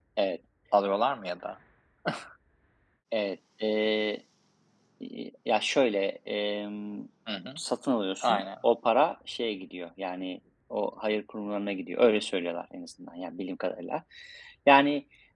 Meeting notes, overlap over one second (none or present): none